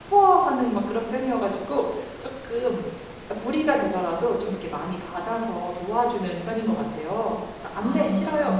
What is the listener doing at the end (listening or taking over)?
listening